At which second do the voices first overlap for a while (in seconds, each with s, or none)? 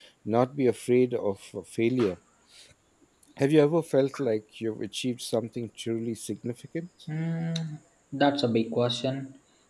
none